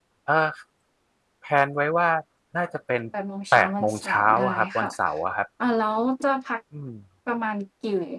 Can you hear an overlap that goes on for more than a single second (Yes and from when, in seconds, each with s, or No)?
Yes, from 3.5 s